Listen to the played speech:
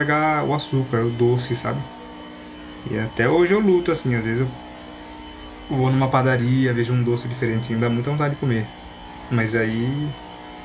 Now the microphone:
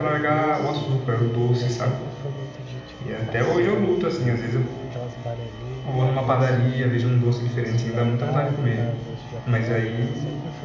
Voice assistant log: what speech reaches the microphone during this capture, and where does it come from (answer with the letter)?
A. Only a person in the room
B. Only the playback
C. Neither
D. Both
D